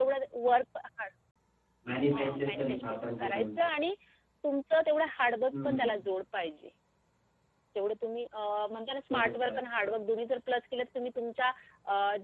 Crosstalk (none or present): present